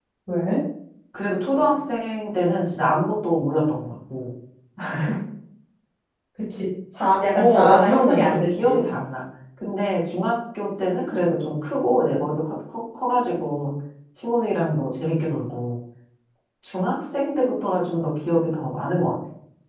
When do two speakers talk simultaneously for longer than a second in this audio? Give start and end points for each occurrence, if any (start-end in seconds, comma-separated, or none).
7.3-8.8